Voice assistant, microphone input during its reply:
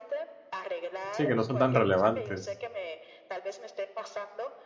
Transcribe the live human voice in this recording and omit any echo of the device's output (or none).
sí, que no son tan relevantes.